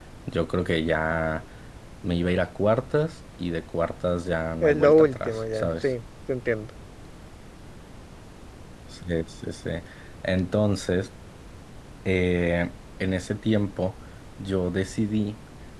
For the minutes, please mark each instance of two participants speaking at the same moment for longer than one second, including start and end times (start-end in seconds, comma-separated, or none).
4.6-5.9